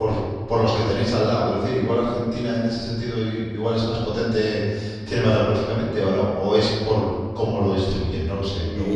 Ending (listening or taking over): taking over